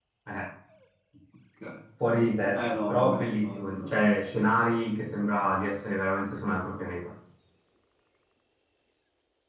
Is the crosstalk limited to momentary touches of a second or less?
No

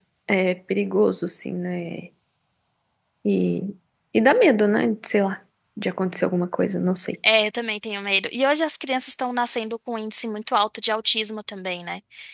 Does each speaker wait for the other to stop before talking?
Yes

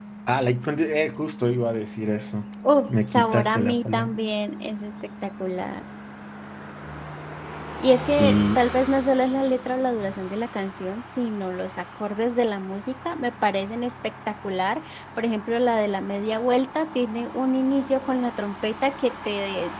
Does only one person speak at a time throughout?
No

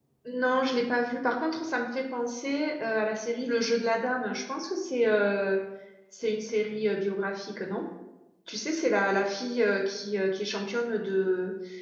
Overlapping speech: No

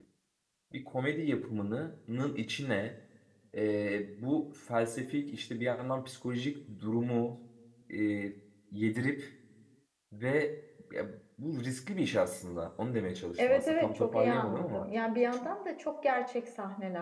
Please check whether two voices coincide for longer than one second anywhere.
Yes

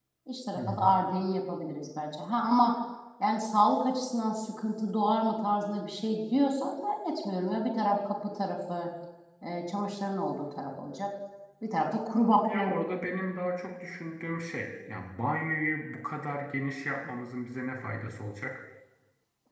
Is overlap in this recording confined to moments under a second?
Yes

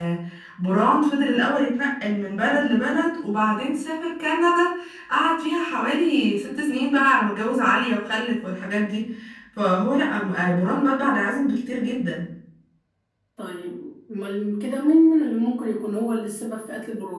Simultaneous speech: No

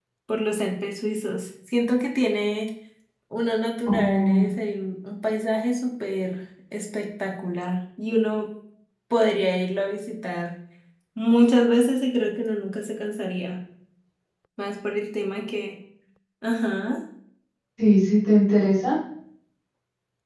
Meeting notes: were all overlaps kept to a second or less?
Yes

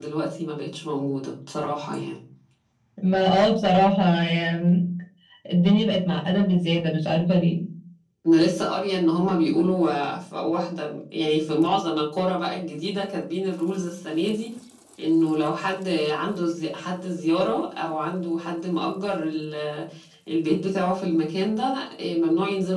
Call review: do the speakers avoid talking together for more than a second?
Yes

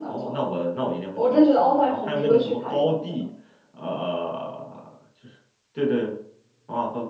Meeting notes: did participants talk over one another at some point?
Yes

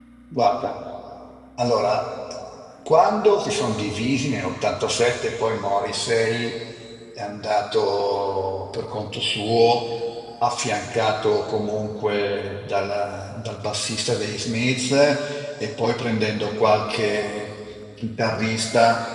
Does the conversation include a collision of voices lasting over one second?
No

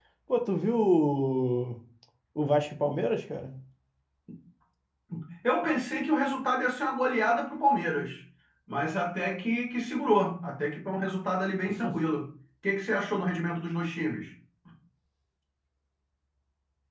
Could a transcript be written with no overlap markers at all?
Yes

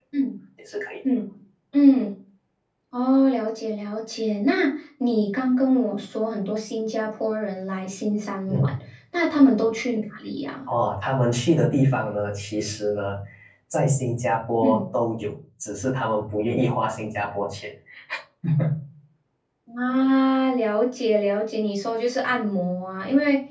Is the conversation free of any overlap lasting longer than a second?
Yes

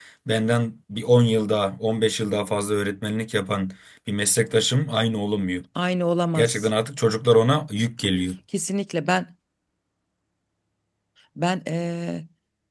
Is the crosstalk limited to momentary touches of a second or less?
Yes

